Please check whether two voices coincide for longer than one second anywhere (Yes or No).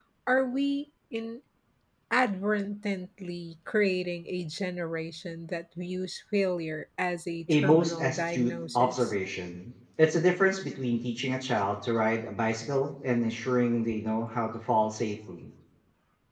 Yes